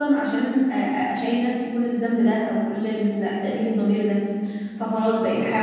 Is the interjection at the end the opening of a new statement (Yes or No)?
No